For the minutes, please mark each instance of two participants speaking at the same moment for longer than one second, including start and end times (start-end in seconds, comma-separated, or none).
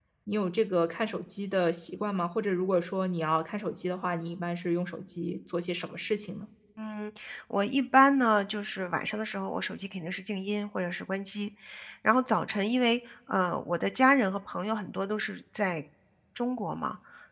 none